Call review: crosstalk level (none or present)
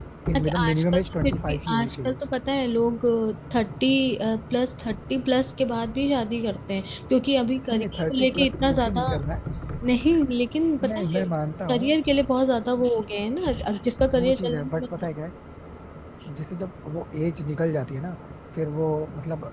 present